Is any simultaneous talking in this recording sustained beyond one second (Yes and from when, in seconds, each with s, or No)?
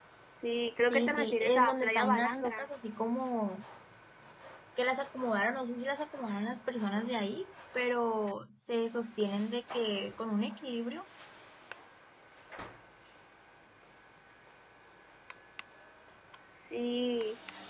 Yes, from 0.9 s